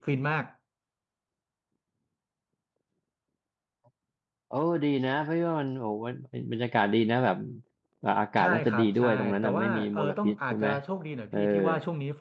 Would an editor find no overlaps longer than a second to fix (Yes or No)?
No